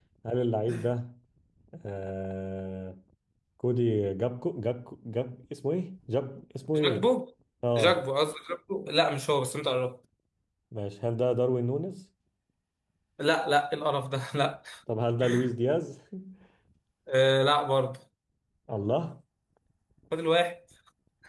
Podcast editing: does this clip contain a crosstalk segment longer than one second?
No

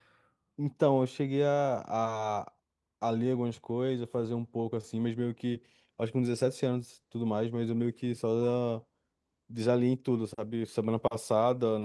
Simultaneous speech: No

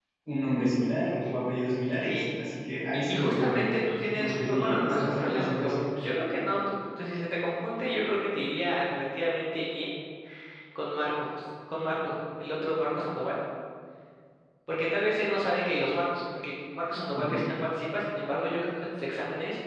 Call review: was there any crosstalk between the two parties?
Yes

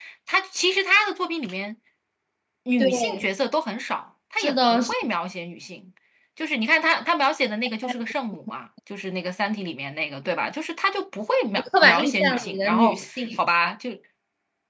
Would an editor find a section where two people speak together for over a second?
Yes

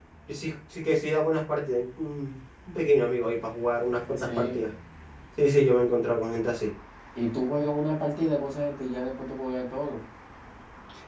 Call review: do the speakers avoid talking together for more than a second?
Yes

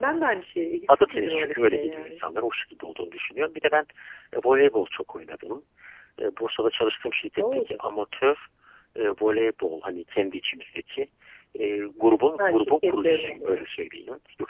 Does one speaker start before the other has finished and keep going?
Yes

